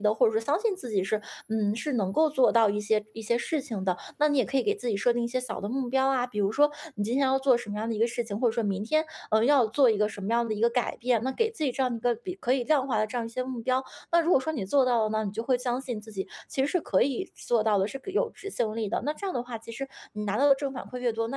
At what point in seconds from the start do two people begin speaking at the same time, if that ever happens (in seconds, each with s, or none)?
none